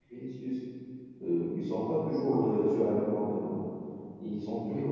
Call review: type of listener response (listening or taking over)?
listening